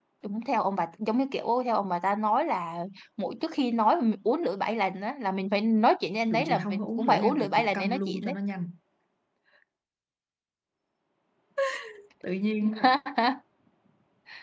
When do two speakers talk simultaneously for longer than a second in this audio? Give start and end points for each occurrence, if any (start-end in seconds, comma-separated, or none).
6.3-8.4